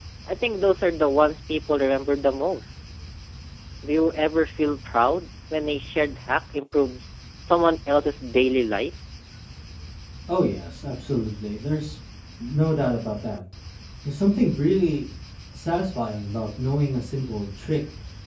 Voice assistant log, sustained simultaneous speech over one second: none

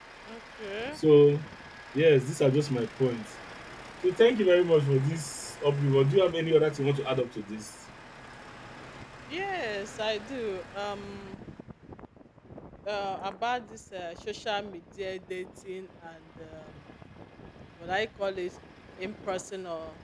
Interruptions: none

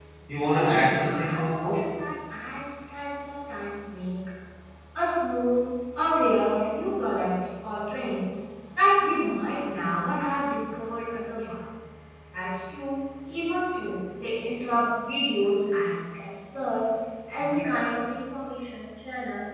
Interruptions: present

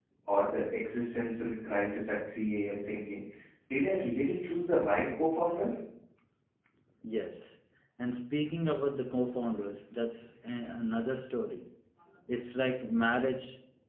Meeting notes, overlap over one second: none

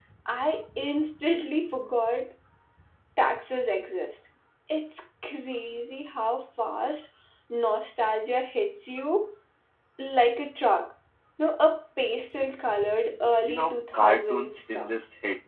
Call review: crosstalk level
present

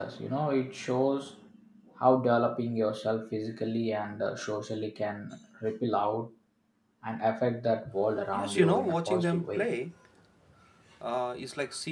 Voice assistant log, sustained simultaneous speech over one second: present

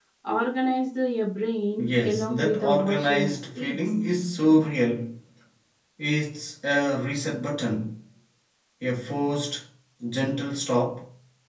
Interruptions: present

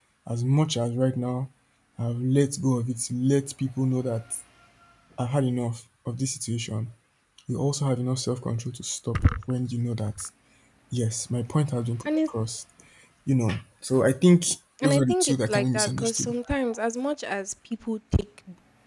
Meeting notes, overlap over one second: present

